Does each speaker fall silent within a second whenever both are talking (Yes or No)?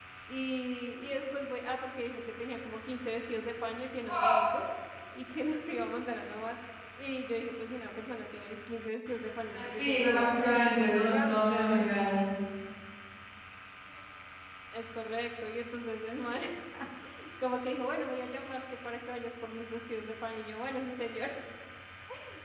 No